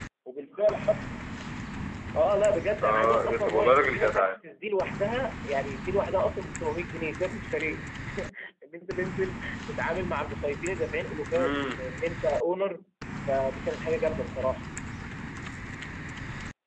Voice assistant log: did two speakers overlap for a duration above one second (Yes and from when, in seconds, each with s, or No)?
Yes, from 2.8 s